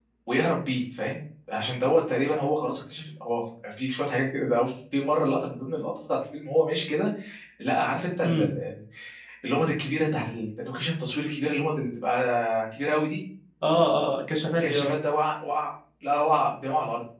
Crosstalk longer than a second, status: none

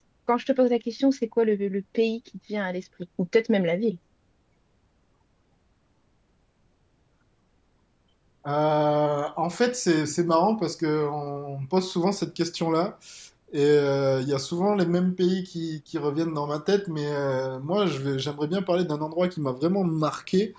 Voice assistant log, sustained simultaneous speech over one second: none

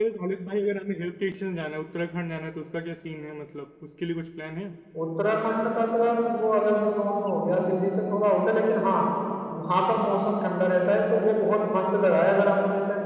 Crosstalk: none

